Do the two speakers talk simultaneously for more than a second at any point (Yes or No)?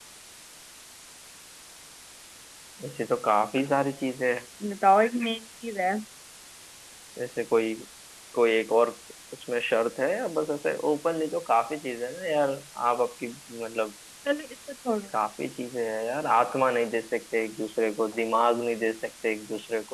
No